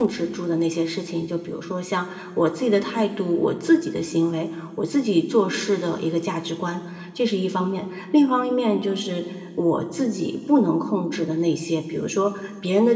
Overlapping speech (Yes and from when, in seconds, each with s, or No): No